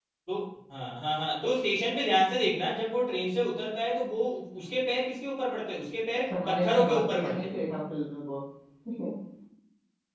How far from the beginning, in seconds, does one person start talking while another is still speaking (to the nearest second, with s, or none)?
6 s